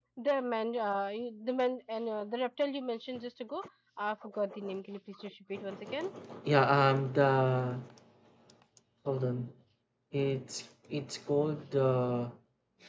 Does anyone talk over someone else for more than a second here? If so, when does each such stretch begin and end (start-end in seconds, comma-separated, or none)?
none